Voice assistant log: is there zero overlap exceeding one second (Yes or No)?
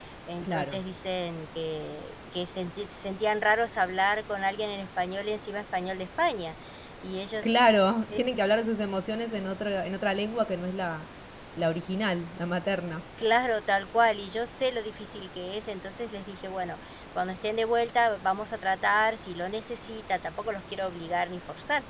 Yes